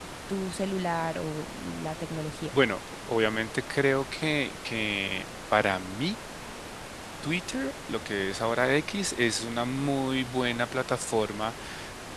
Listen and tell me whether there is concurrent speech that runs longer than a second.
No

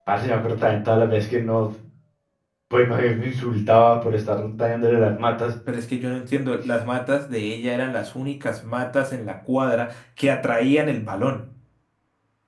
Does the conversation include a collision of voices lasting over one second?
No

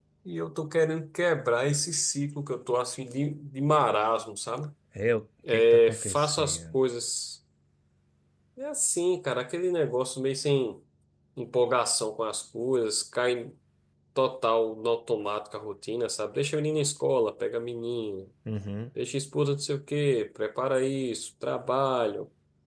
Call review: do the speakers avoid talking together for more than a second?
No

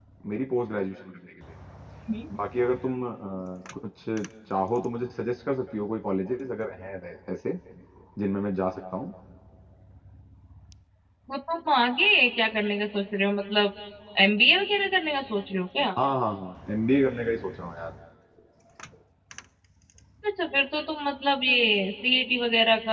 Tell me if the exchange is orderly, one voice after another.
Yes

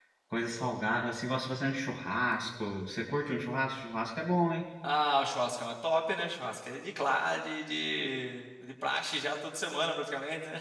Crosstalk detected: No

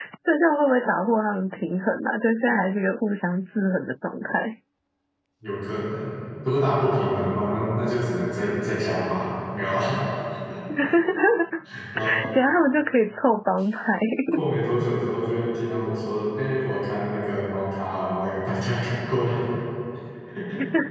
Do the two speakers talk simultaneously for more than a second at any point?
No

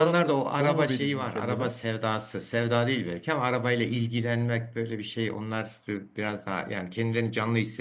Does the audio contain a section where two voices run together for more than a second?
Yes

